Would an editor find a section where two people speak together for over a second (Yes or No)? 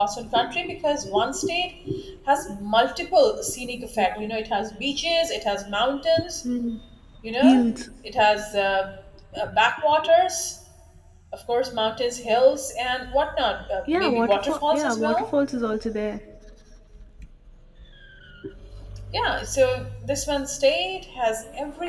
Yes